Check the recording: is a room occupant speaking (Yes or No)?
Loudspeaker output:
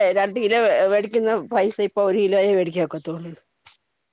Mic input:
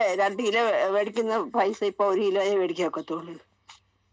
No